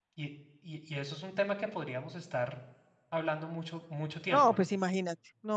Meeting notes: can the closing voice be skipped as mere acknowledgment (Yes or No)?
No